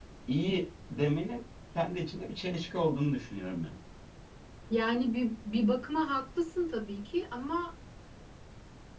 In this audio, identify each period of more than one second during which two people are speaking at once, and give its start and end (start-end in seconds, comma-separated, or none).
none